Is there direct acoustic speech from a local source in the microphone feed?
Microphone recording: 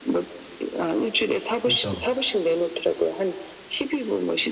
Yes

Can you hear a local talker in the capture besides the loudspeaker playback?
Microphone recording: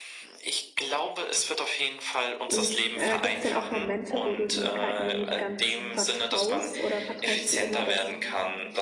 Yes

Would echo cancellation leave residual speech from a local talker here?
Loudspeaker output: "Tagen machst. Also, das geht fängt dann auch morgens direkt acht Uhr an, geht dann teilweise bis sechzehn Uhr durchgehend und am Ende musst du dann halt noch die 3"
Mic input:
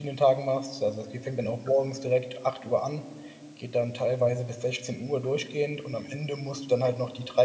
No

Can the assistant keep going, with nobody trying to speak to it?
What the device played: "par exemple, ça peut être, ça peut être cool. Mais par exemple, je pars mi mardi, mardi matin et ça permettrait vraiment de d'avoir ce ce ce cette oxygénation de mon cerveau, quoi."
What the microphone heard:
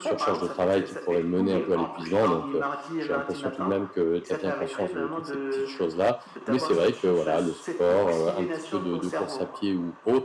No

